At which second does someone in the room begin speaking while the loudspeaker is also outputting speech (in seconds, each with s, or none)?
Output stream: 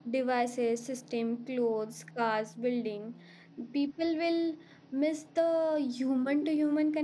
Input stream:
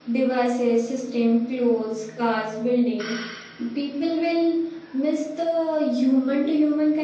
none